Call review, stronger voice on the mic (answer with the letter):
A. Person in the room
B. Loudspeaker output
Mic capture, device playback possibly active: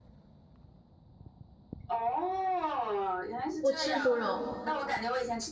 A